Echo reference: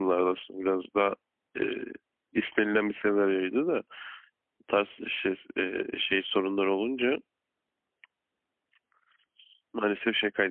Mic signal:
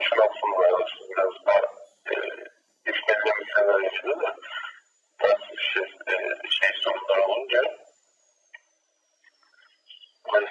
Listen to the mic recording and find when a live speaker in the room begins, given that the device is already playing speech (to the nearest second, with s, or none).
none